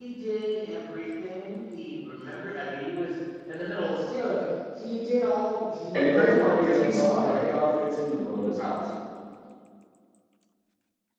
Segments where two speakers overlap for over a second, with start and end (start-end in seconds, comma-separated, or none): 5.9-7.4